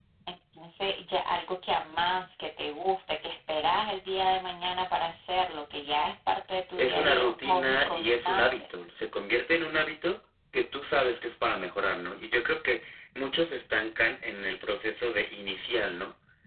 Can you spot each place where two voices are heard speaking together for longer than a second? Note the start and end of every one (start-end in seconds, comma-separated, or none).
6.8-8.5